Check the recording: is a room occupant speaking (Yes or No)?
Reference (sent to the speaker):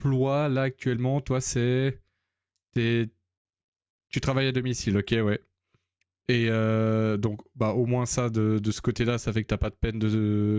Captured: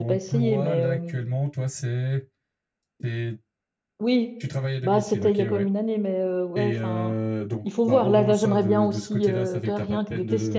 Yes